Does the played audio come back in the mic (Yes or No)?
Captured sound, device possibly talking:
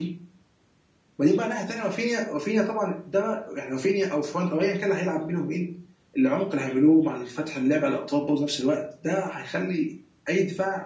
No